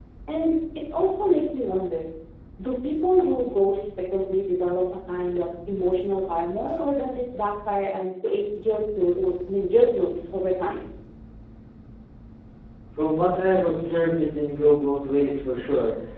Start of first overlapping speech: none

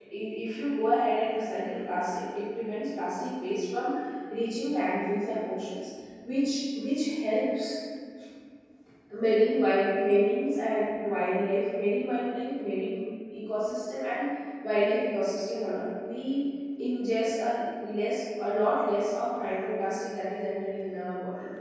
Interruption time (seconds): none

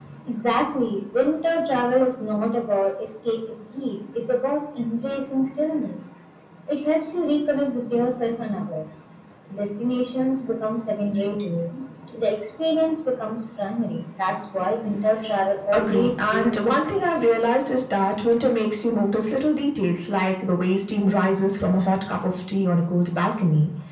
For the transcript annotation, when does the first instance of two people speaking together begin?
15.7 s

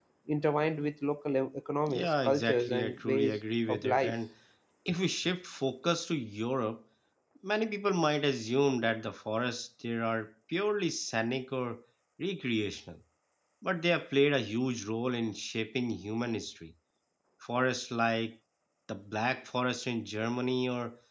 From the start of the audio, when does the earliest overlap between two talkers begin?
1.9 s

